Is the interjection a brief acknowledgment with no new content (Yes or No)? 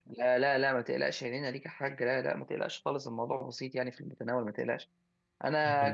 Yes